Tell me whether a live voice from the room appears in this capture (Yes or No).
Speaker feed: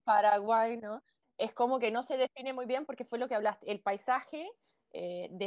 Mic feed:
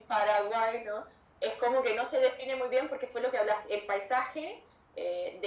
No